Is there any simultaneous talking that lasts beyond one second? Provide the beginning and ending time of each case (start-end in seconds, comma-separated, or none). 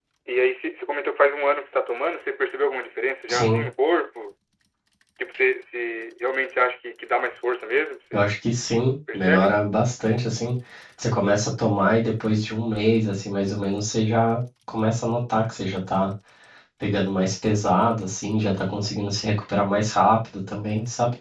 none